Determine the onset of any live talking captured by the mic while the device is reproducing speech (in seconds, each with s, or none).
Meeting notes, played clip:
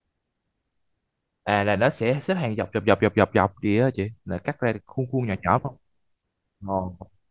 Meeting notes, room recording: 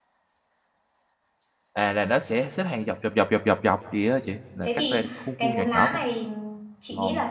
4.6 s